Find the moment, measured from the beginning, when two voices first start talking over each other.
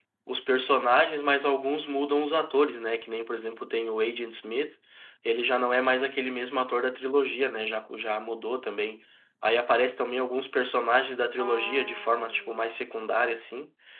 11.4 s

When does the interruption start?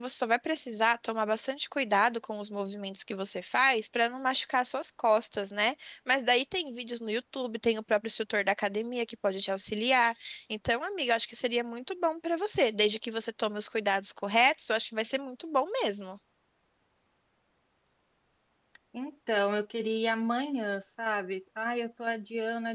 none

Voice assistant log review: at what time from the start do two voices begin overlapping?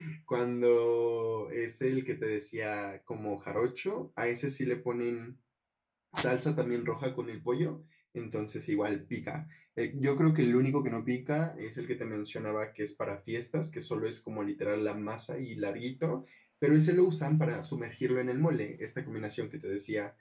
none

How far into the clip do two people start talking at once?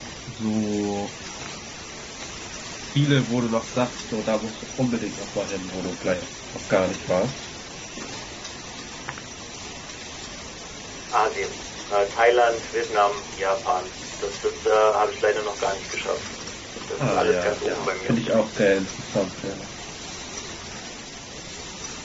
17.0 s

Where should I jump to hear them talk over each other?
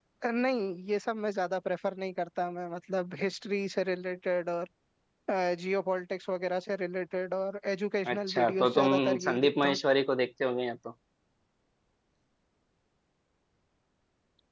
8.1 s

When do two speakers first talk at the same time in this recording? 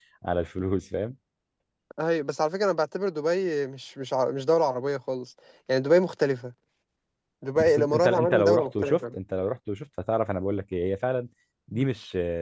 7.6 s

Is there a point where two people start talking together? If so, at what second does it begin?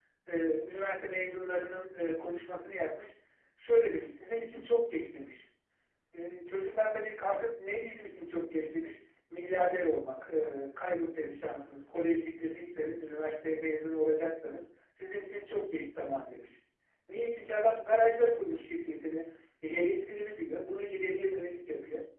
none

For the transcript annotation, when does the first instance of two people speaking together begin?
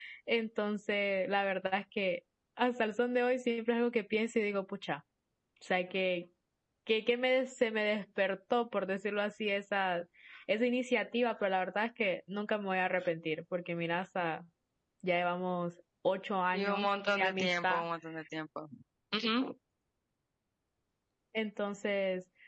16.5 s

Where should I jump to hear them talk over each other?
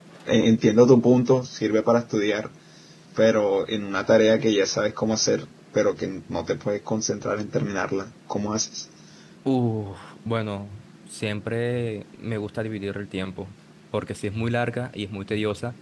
none

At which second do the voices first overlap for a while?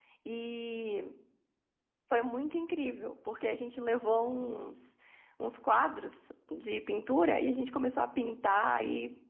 none

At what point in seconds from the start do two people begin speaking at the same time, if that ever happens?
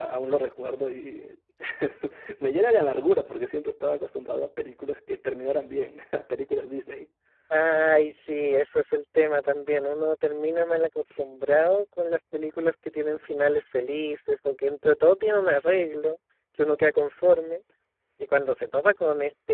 none

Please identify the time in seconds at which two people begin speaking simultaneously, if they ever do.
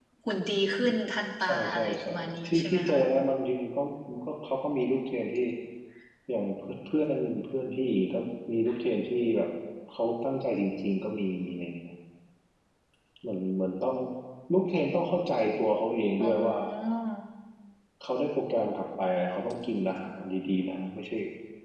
1.4 s

